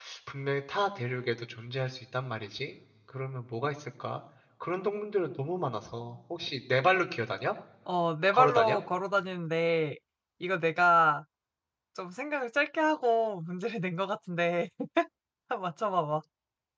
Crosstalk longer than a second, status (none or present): none